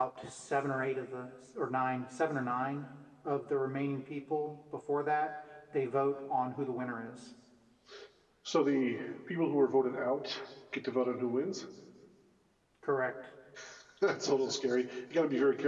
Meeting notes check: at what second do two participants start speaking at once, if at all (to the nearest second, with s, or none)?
none